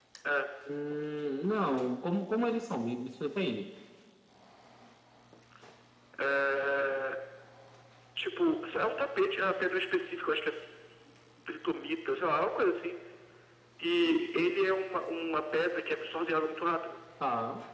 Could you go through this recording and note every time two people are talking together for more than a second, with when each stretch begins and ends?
none

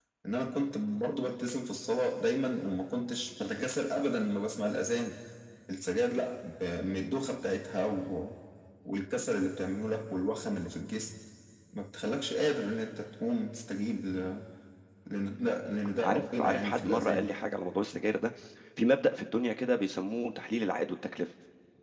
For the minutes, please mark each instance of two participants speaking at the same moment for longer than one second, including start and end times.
16.0-17.3

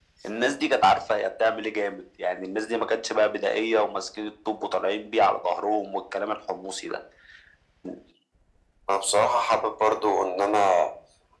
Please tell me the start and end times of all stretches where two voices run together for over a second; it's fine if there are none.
none

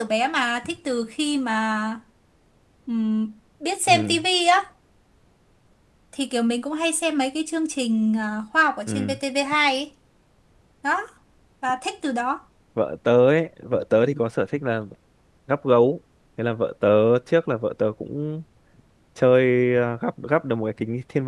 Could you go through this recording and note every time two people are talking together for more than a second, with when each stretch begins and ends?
none

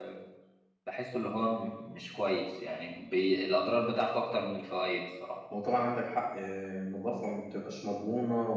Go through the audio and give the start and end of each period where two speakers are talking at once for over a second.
none

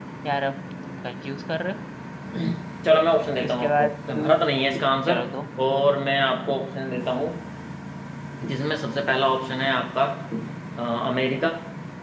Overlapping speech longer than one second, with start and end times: none

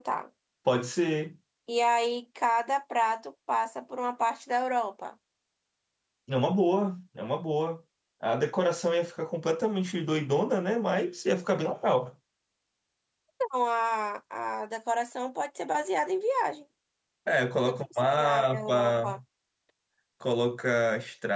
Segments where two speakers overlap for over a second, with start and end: 17.6-19.2

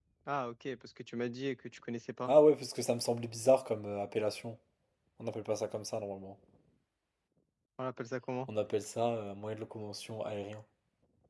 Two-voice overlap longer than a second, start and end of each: none

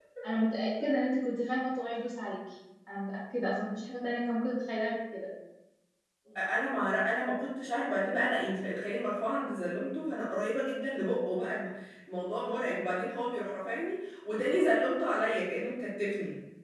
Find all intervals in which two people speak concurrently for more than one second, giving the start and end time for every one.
none

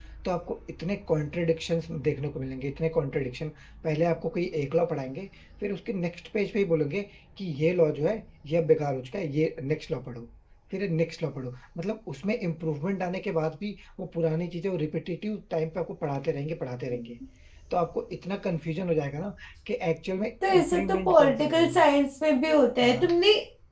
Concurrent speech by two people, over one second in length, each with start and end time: 20.4-21.9

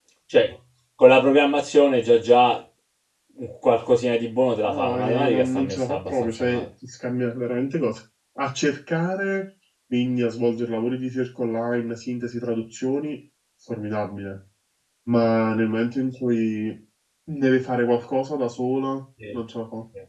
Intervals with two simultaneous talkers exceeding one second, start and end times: 4.7-6.7

